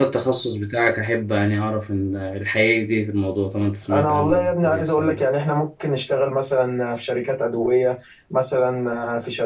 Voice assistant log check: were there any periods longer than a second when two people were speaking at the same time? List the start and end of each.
3.9-5.2

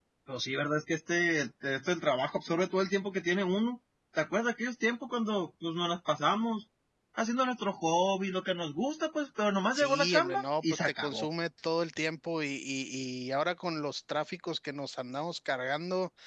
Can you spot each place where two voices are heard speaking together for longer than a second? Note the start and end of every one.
9.7-11.3

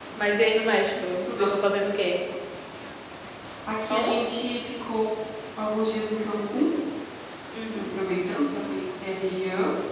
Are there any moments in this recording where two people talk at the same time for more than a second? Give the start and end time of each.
none

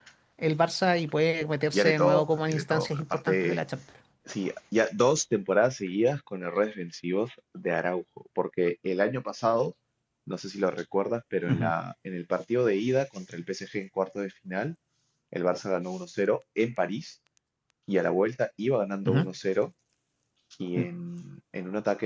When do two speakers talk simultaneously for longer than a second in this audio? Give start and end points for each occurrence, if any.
1.7-3.6

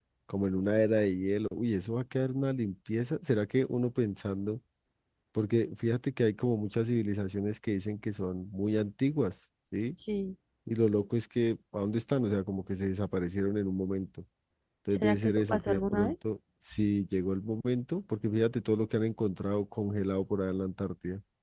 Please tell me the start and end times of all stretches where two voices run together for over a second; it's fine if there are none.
14.9-16.1

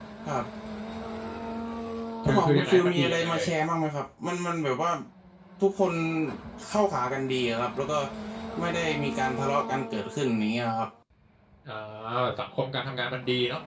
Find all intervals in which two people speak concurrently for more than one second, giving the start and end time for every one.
2.2-3.5

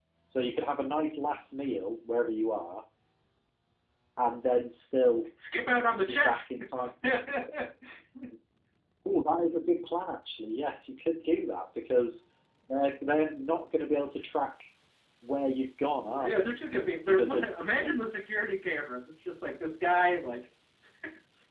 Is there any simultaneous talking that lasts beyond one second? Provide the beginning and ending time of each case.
none

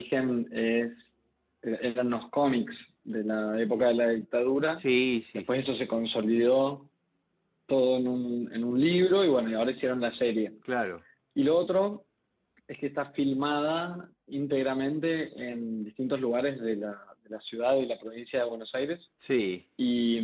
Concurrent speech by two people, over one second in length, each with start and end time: none

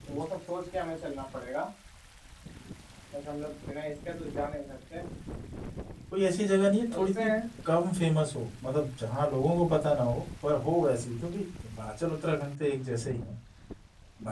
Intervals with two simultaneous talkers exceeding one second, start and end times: none

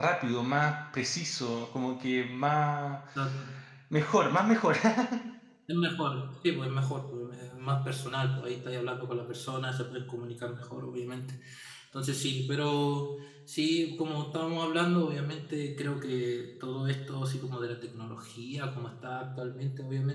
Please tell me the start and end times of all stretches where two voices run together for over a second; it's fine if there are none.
none

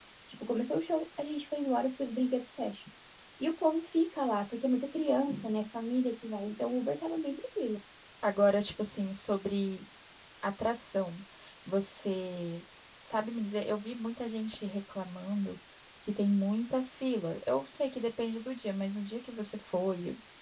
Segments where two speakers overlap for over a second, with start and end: none

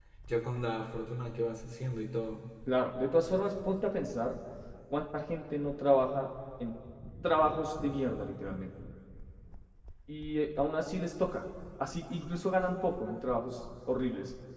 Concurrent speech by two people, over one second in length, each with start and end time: none

